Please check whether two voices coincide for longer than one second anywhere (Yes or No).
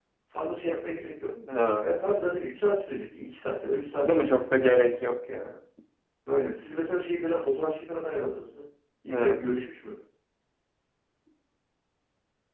No